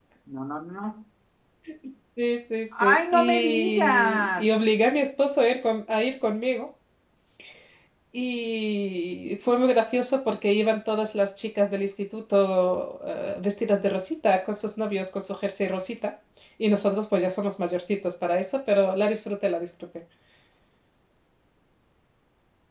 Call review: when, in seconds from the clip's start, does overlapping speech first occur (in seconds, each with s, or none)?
2.7 s